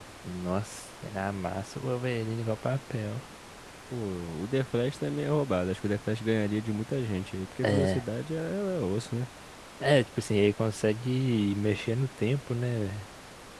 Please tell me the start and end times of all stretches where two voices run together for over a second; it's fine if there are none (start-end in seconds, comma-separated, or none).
none